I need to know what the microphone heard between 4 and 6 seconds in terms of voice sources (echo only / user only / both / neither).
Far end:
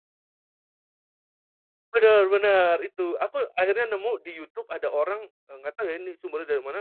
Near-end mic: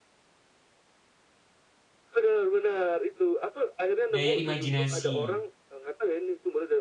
both